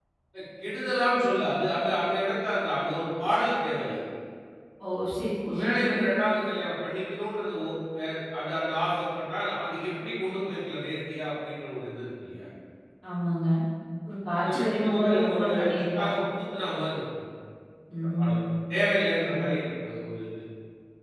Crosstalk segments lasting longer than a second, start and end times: 14.4-16.1

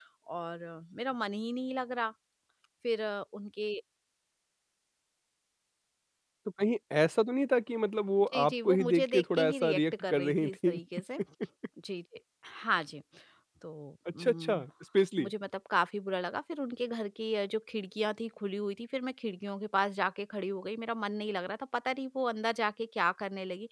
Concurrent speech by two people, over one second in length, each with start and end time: 8.2-10.8

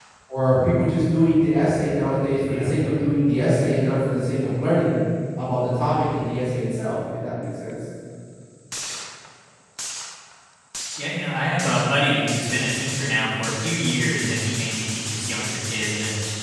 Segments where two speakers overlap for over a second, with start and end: none

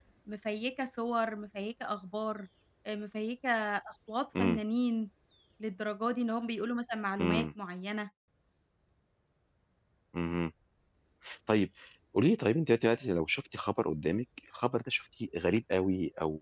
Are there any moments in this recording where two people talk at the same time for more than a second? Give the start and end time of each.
none

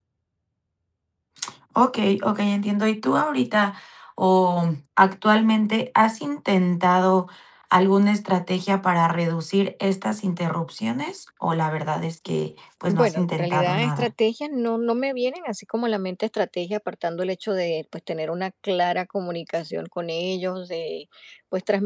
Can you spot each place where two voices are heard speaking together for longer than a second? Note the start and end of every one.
12.9-14.1

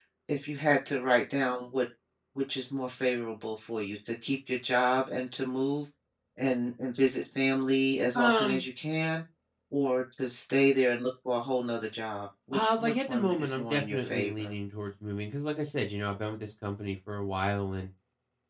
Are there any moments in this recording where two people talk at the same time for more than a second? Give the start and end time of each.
12.5-14.5

